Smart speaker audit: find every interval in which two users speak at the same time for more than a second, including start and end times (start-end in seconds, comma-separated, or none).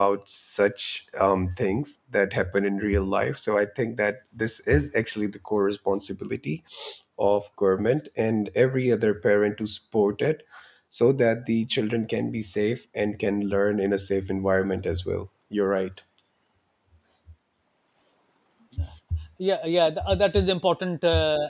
none